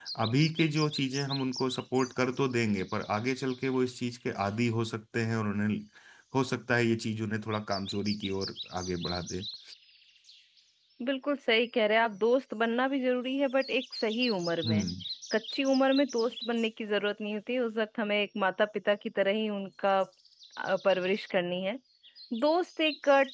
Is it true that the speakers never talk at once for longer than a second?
Yes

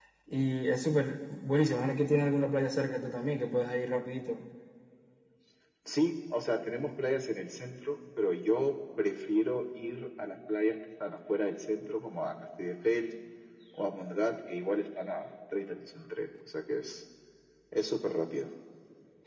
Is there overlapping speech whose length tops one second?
No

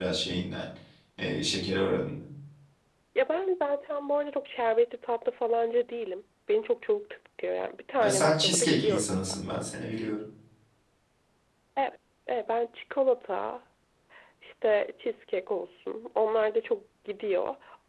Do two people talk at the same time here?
Yes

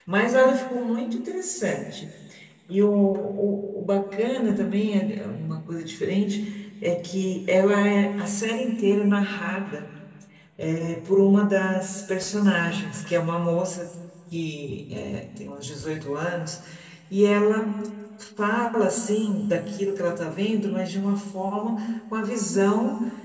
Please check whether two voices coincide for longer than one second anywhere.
No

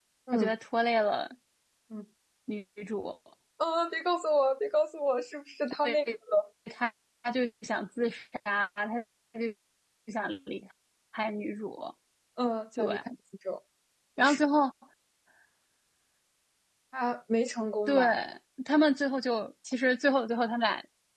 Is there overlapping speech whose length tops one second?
No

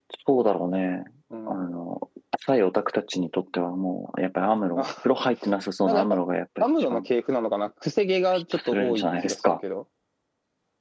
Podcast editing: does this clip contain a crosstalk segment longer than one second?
Yes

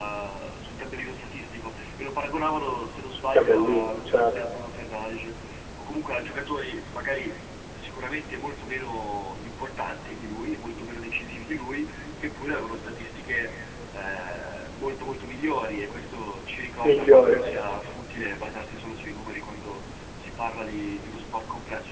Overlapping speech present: Yes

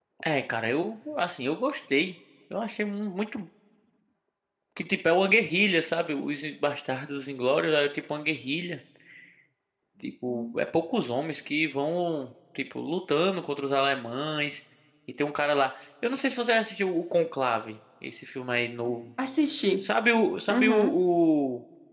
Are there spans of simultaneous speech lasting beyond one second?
No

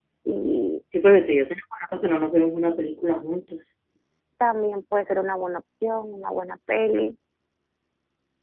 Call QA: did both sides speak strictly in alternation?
Yes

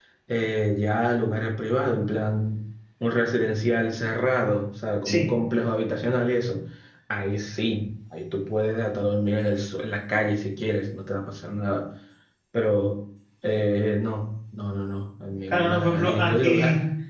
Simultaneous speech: Yes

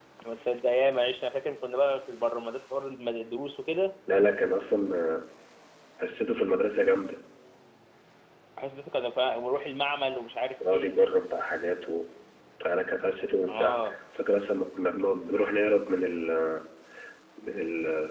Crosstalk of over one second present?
No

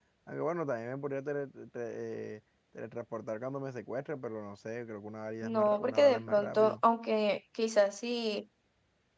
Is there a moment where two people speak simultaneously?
Yes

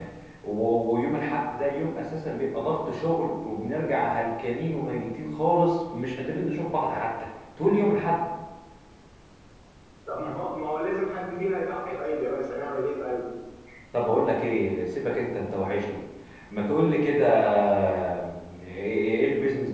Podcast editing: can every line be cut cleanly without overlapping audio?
Yes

